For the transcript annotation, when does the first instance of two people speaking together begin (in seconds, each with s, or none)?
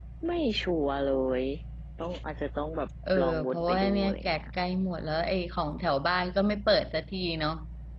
3.1 s